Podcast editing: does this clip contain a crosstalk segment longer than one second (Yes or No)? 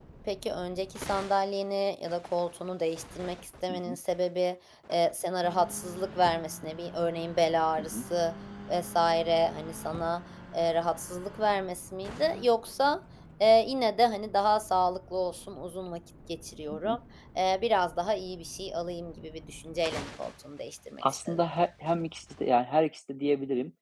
No